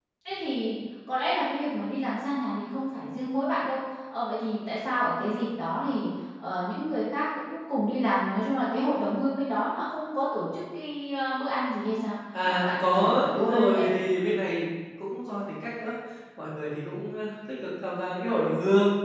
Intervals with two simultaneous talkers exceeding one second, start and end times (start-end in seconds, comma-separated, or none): 12.4-13.8